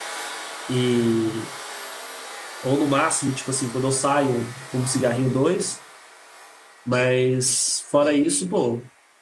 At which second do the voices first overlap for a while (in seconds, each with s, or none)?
none